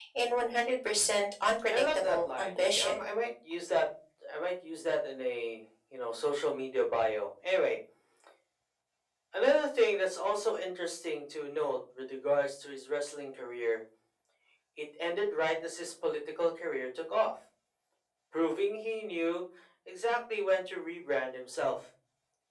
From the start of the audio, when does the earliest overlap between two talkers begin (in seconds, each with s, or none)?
1.7 s